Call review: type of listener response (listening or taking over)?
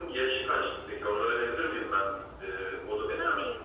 taking over